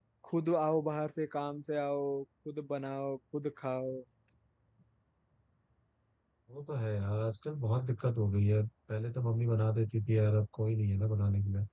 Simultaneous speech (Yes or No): No